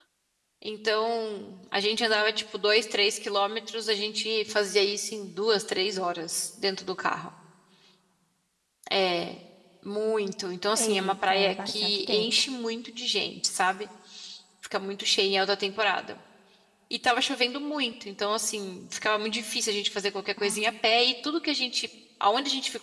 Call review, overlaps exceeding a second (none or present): present